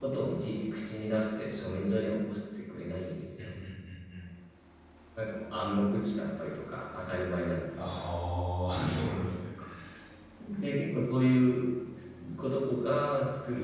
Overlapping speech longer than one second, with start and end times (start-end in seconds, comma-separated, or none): none